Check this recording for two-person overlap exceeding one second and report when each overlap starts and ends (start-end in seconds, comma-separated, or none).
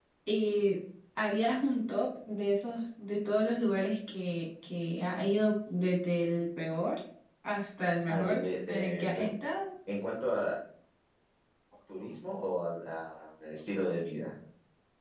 8.1-9.3